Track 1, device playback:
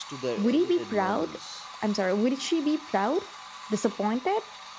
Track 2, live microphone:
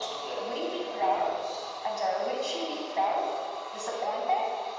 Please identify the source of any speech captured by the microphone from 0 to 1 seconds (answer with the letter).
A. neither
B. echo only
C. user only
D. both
B